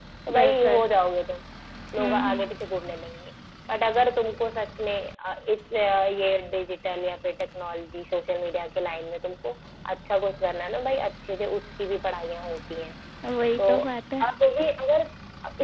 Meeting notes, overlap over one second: none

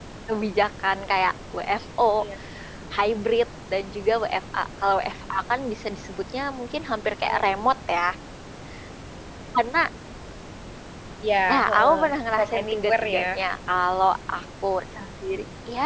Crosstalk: present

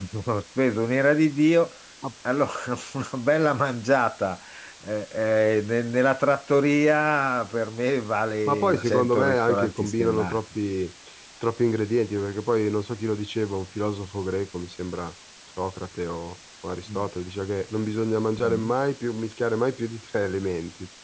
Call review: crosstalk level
present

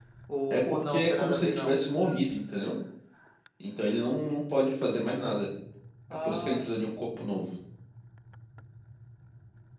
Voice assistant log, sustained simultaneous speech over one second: present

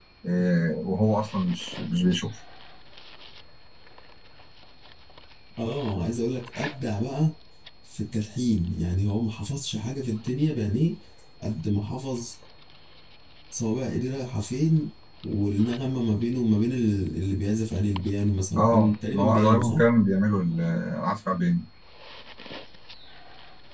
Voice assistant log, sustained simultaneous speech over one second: present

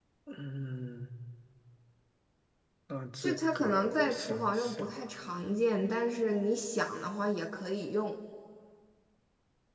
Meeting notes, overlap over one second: present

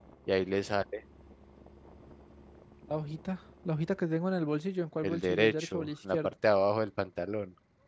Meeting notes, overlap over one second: present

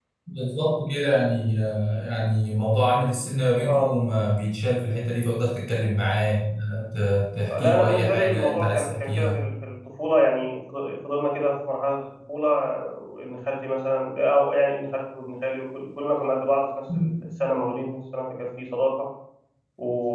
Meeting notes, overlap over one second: present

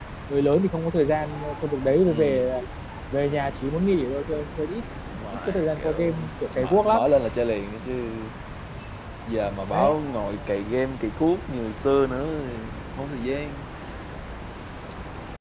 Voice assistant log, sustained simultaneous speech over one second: present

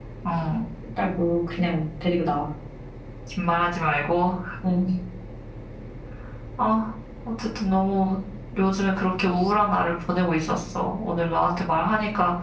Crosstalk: none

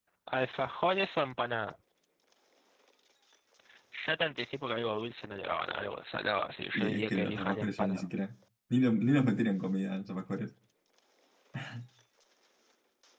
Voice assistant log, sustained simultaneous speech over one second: present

